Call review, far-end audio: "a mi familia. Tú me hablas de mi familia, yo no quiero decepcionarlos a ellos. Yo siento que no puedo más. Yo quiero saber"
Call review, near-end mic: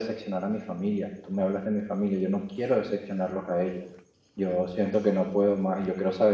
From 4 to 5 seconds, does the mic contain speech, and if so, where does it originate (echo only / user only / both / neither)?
echo only